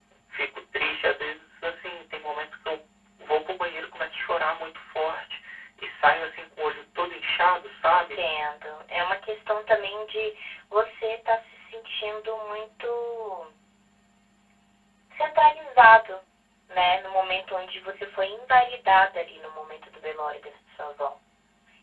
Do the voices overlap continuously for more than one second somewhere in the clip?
No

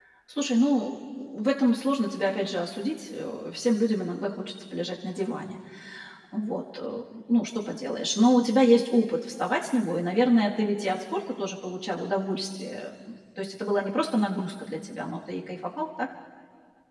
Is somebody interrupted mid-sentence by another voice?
No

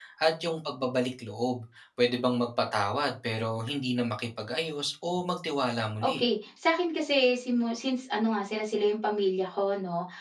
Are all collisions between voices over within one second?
Yes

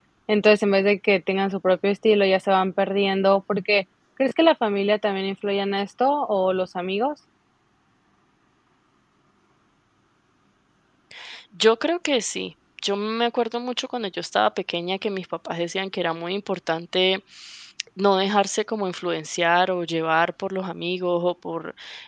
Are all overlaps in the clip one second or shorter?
Yes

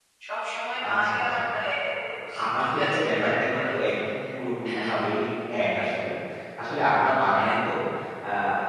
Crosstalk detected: Yes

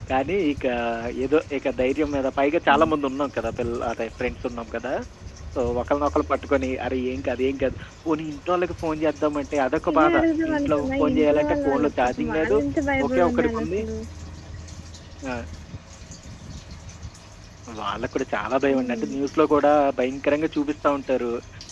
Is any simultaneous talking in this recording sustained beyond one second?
Yes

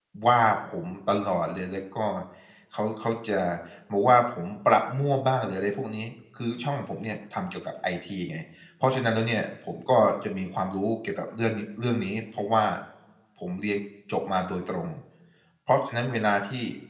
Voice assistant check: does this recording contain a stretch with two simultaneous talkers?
No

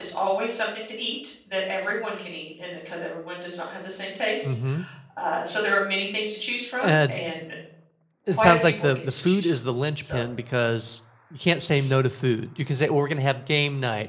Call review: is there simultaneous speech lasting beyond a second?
Yes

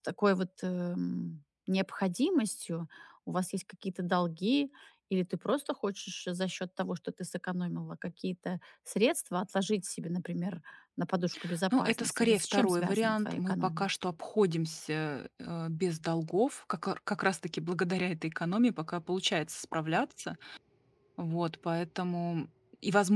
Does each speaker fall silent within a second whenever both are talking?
No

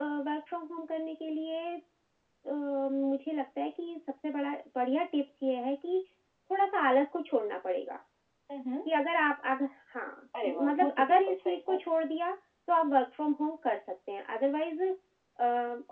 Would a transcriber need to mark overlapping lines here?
Yes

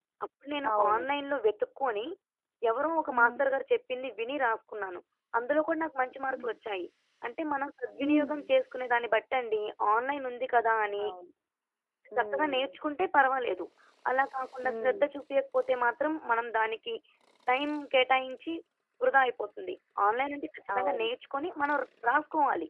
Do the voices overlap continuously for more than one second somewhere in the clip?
No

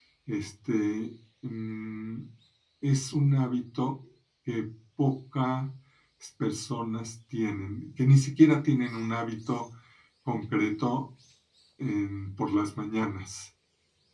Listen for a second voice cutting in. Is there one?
No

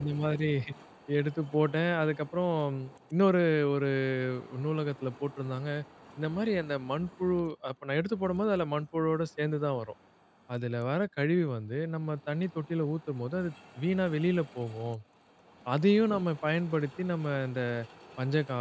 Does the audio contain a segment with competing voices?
No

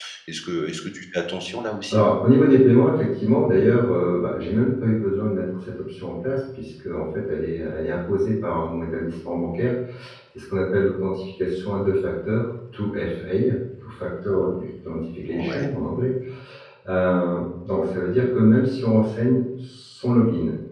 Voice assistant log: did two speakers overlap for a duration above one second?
No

